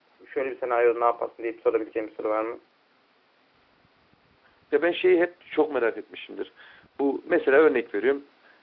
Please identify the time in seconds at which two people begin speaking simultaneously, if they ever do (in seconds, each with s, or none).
none